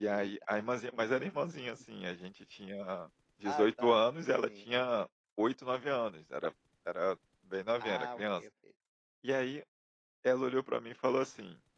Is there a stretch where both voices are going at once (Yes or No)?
Yes